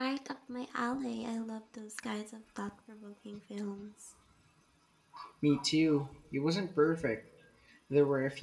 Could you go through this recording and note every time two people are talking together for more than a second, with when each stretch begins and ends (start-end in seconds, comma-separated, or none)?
none